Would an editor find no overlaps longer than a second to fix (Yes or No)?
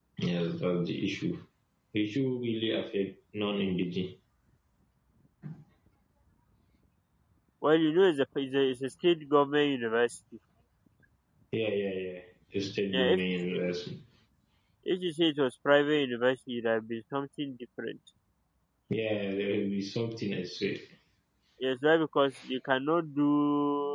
Yes